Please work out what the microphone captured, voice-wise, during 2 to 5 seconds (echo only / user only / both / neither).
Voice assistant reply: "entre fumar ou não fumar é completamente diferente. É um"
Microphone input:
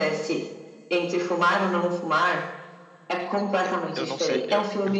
both